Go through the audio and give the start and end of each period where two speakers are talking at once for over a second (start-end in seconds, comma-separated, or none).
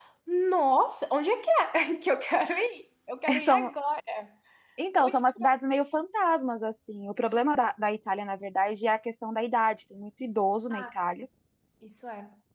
none